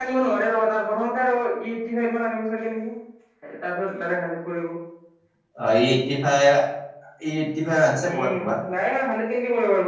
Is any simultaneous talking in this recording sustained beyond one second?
No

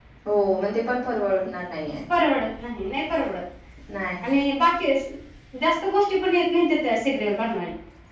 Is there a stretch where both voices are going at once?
No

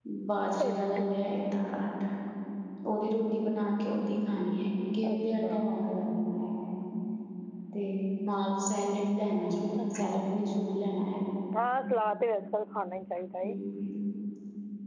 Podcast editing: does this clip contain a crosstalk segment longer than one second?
No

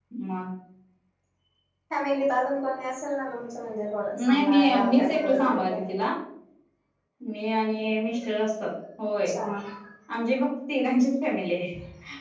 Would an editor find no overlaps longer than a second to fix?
No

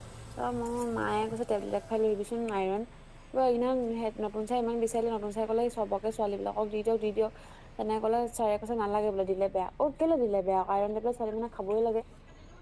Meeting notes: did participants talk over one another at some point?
No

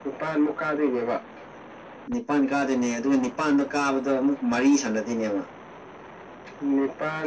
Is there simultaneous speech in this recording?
No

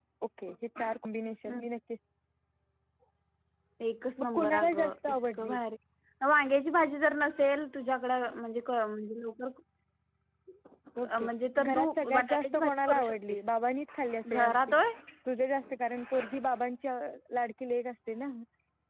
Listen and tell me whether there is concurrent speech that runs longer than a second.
Yes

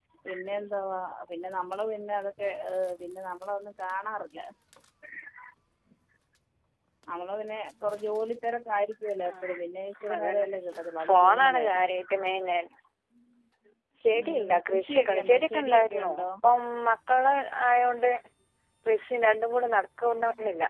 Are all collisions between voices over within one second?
No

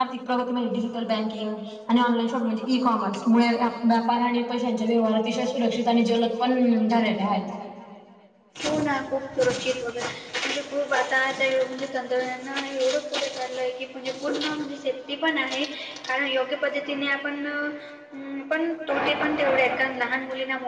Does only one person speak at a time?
Yes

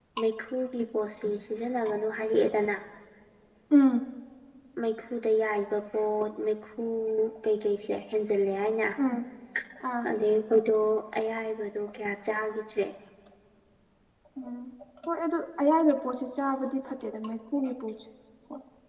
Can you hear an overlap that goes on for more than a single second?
No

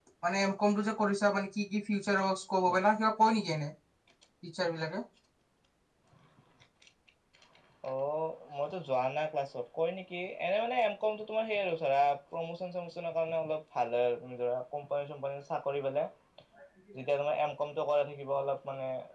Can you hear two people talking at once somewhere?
No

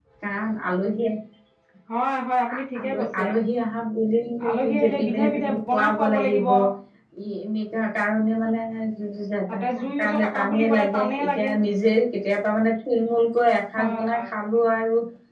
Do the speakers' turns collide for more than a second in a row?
Yes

